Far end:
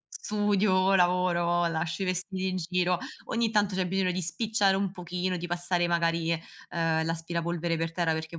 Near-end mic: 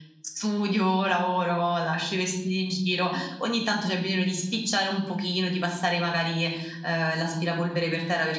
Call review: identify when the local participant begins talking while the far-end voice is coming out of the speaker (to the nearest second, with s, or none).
none